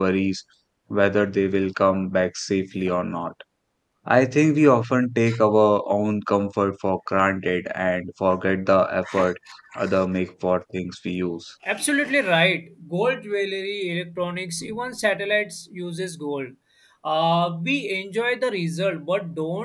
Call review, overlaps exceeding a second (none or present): none